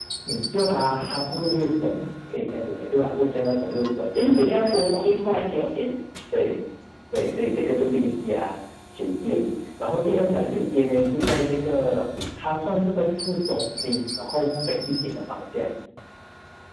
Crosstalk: present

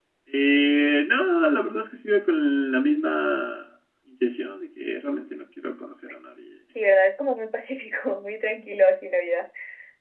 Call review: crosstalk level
none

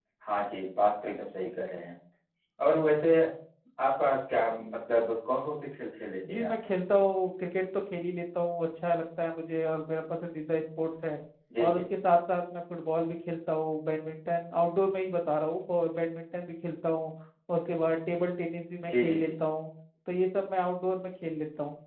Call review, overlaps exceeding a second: none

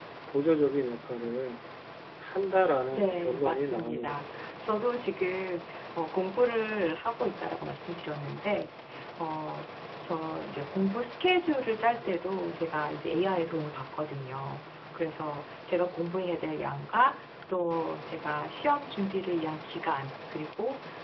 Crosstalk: present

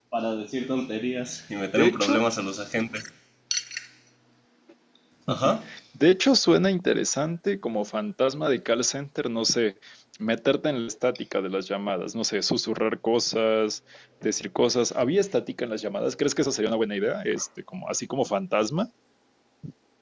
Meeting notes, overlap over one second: none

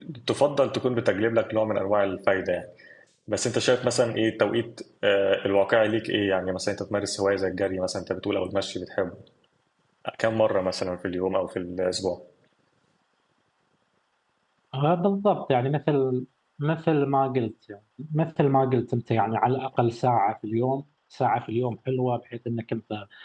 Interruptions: none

